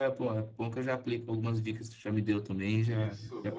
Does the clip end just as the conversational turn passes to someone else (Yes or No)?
Yes